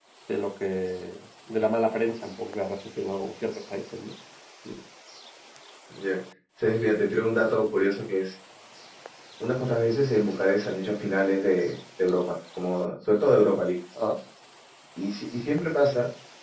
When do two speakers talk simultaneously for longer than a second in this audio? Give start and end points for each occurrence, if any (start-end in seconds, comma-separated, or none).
none